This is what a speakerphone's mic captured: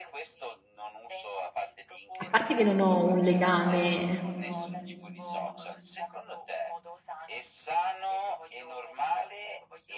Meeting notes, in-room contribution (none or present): present